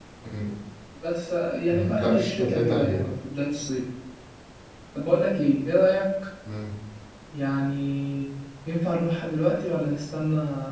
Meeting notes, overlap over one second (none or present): present